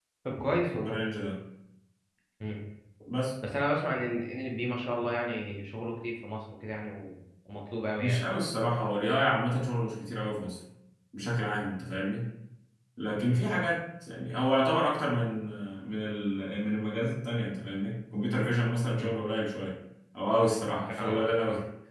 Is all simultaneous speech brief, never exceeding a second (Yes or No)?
Yes